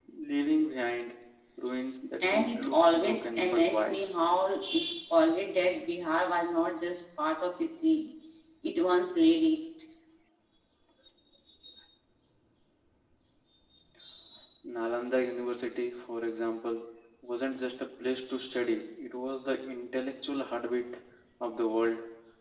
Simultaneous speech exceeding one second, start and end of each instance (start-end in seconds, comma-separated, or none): 2.2-4.0